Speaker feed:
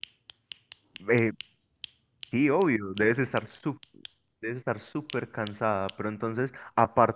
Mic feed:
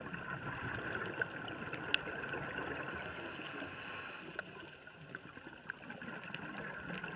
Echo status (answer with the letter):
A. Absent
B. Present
A